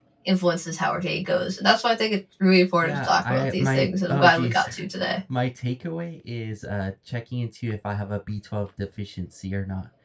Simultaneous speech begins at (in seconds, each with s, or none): 2.8 s